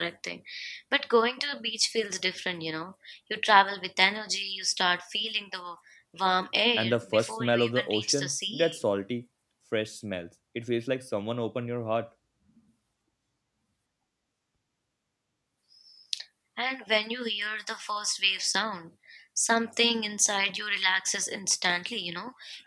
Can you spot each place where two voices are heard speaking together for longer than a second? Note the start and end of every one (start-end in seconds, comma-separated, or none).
6.8-8.8